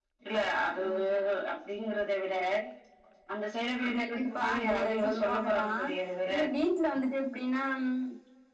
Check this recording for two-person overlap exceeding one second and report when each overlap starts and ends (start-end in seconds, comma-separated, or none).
3.8-5.7